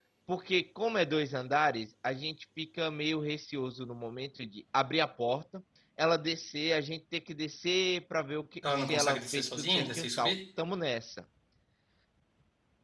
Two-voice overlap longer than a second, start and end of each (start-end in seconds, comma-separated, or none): 8.7-10.3